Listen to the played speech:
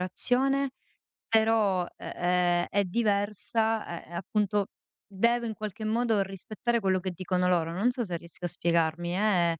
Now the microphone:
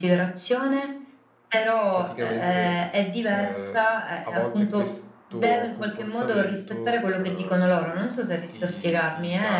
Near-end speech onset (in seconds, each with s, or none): 1.9 s